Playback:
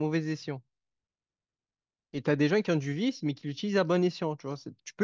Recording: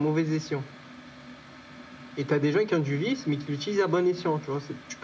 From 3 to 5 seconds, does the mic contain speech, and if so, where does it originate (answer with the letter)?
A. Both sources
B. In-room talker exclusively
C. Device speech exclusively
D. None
C